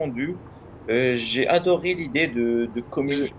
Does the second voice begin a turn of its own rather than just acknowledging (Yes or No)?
No